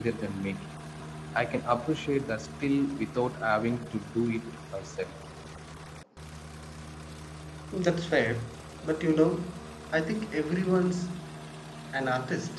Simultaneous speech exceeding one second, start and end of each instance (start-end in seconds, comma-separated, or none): none